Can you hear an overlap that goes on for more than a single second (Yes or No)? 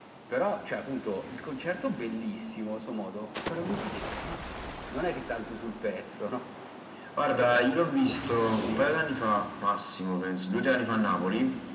No